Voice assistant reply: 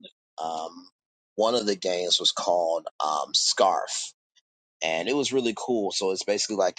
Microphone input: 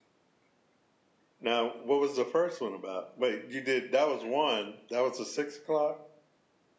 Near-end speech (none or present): present